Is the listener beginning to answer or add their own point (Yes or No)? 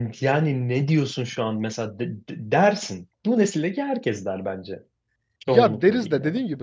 Yes